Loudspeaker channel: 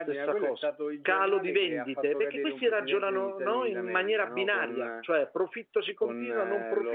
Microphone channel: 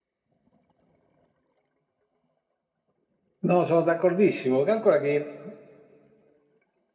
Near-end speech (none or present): present